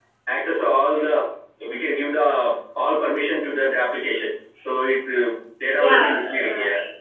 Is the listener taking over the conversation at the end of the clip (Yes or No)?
Yes